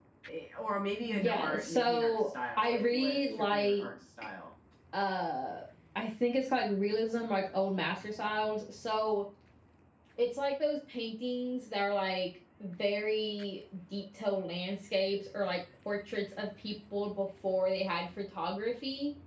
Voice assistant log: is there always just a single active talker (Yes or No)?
No